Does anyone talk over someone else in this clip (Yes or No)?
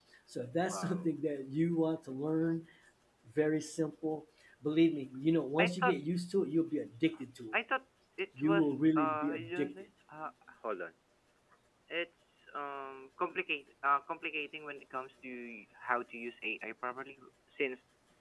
Yes